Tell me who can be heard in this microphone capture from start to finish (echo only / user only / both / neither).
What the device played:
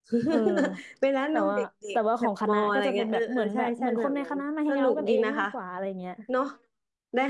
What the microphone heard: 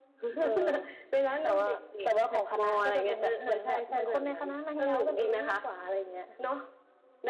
echo only